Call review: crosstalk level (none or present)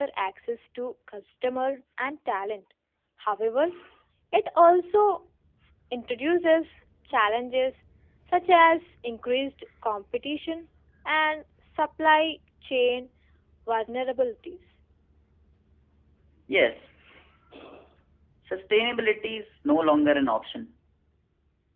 none